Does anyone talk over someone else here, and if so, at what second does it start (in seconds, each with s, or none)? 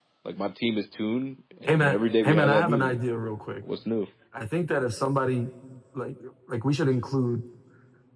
1.6 s